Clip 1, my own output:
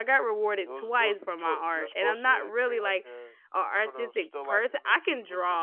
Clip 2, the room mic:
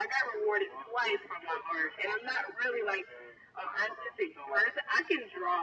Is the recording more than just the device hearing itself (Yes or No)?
No